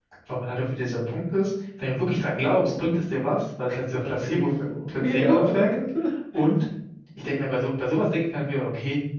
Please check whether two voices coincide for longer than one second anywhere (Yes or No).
Yes